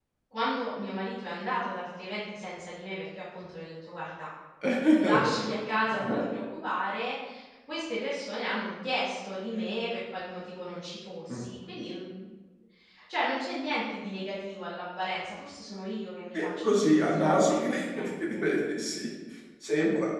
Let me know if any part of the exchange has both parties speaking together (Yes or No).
Yes